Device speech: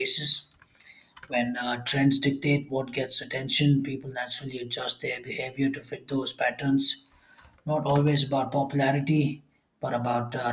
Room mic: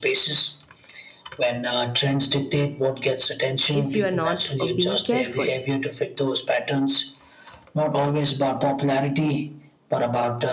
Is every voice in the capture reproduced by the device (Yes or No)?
No